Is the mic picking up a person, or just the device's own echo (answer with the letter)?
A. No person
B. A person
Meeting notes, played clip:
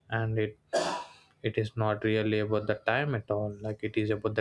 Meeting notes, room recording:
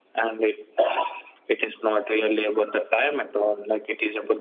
A